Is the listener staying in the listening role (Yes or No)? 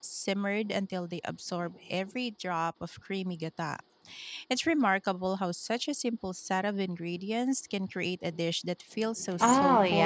No